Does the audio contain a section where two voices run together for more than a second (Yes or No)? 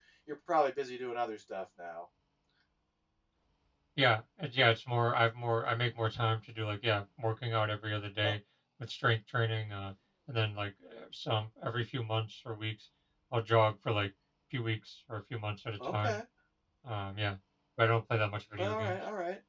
No